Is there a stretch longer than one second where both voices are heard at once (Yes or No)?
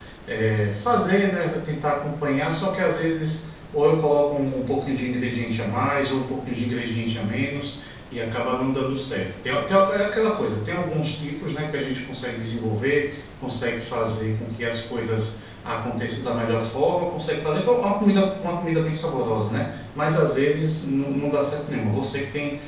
No